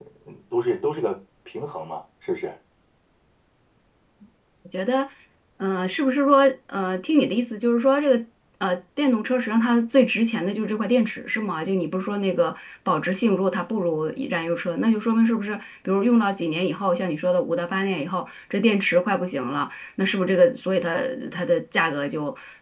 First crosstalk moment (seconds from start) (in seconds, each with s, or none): none